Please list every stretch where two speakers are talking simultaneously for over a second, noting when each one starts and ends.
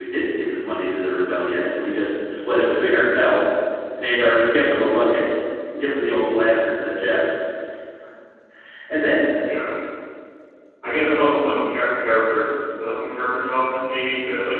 none

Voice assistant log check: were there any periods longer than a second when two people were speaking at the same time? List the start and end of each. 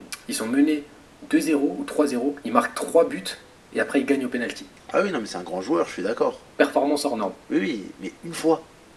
none

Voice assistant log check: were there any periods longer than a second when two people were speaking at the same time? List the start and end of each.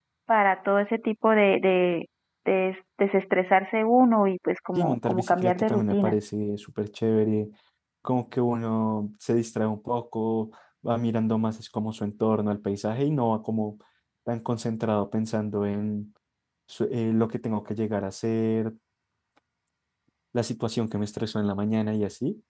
4.8-6.2

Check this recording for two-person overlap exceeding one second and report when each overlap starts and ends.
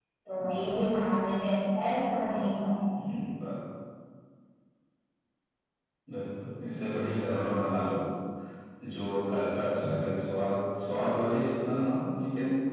none

